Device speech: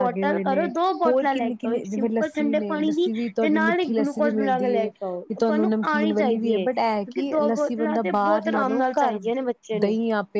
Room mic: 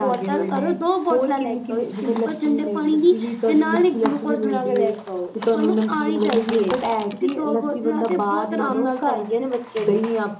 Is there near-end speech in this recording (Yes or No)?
No